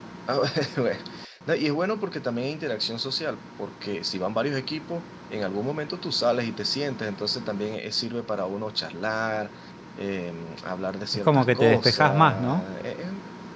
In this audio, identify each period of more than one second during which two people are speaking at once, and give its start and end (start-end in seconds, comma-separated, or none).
11.1-12.6